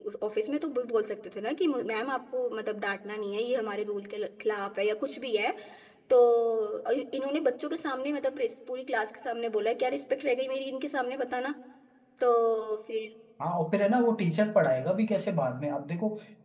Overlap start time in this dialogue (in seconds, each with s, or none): none